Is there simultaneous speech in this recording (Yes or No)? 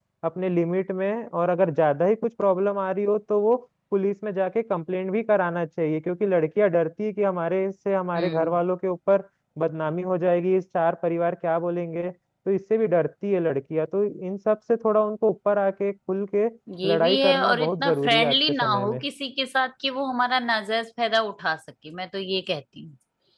Yes